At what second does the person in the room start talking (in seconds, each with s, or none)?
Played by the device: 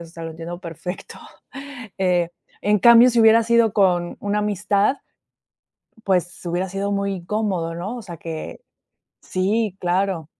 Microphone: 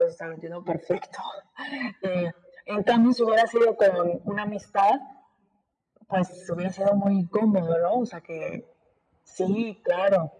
none